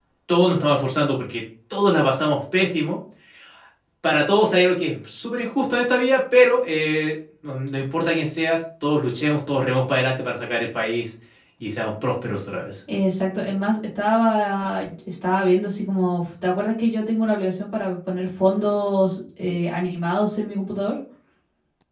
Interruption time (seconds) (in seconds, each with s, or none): none